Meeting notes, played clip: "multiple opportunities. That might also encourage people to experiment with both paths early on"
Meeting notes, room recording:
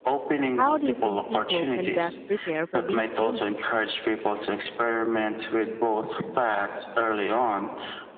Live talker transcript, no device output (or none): How do you think people can best prepare for these changes?